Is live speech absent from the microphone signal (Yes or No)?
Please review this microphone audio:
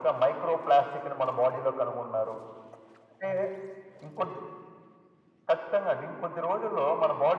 Yes